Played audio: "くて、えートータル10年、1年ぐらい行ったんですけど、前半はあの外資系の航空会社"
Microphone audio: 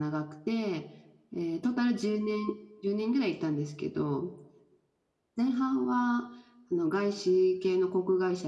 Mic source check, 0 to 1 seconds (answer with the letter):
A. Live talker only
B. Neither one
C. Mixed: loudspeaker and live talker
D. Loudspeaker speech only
D